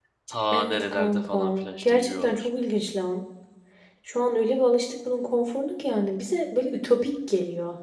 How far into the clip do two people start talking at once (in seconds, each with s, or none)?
0.5 s